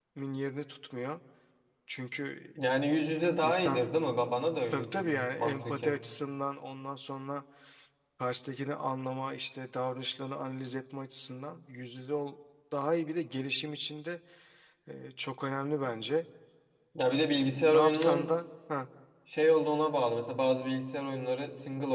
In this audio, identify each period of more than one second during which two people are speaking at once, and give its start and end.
4.7-6.0, 17.1-18.3

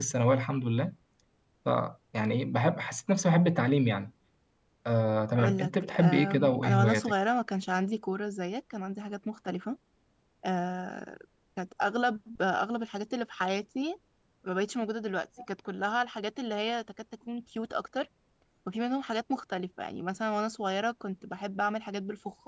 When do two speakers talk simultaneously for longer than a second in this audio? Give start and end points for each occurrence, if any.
5.4-7.1

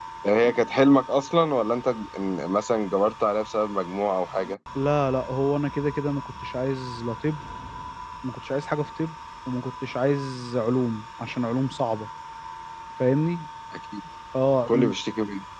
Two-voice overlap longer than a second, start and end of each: none

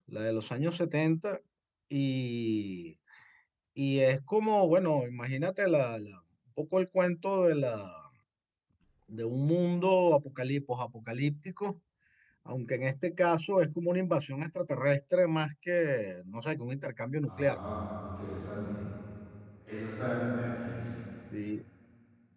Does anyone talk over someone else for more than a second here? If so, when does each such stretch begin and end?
none

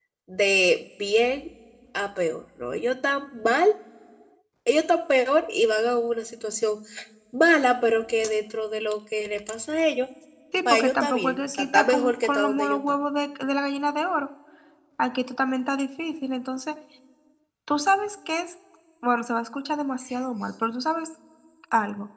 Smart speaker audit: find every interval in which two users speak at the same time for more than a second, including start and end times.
10.7-12.8

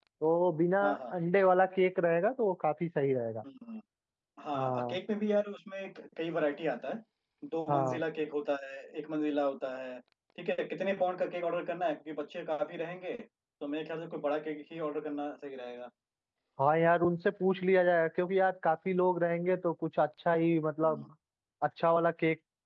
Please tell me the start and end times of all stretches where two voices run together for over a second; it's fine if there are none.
none

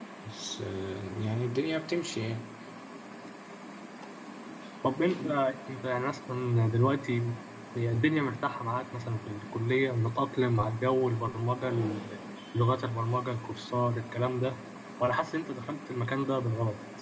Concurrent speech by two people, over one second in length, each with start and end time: none

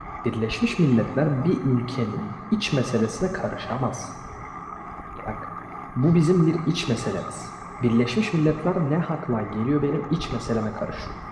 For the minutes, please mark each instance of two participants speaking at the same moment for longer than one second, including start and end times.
none

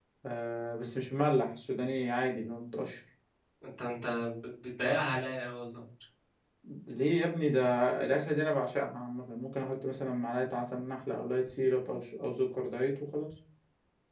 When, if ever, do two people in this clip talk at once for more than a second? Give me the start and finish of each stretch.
none

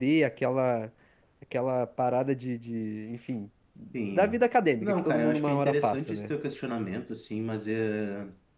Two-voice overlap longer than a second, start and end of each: 4.8-6.3

